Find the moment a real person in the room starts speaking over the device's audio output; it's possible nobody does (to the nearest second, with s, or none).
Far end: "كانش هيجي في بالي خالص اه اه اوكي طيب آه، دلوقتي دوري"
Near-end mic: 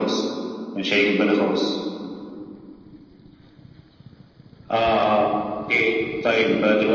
none